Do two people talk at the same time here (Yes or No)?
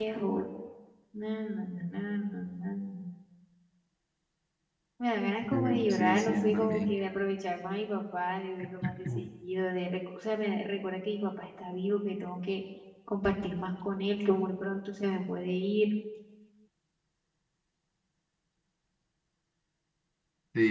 Yes